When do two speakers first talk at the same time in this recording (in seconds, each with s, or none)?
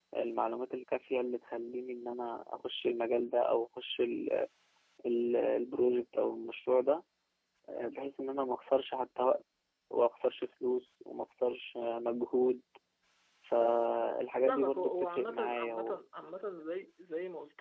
14.5 s